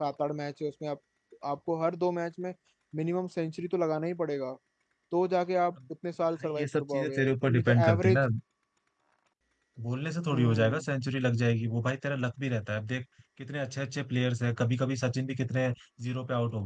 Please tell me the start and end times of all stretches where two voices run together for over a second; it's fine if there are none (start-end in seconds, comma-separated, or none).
6.4-8.2